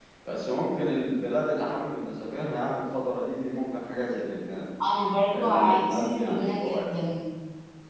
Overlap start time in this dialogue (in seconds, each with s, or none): 5.3 s